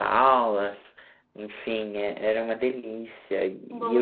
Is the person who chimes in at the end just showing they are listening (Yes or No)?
Yes